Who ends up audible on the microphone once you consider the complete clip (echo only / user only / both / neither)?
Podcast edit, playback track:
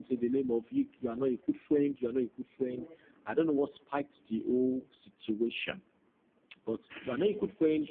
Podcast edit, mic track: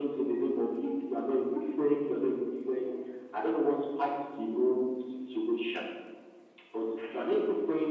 echo only